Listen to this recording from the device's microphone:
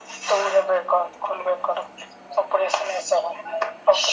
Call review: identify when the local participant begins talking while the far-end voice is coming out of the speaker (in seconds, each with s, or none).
none